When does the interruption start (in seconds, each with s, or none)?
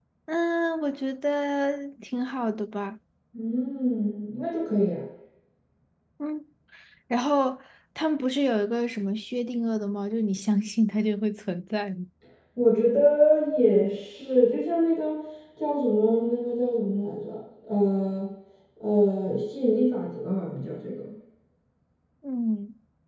none